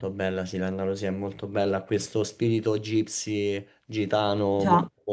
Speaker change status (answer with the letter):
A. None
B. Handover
A